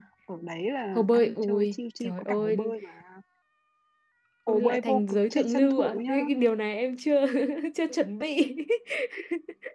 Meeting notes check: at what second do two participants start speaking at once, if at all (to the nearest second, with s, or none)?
1 s